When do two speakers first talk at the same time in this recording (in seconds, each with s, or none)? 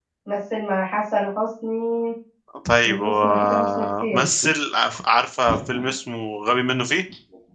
2.8 s